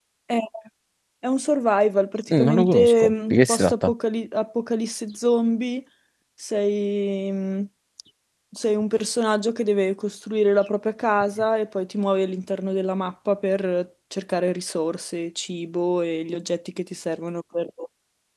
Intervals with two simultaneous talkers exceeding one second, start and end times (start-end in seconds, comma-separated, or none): 2.3-3.9